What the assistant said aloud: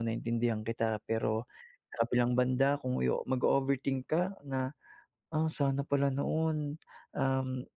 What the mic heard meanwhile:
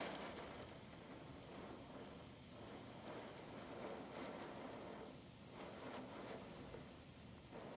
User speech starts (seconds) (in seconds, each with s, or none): none